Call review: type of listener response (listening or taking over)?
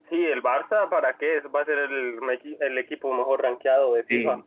taking over